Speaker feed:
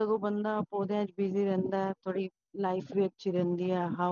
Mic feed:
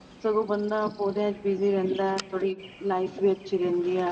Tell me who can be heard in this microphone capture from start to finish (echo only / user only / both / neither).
echo only